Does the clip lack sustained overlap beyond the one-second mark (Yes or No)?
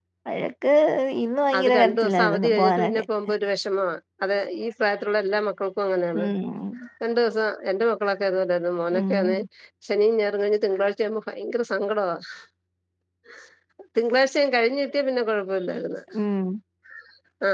No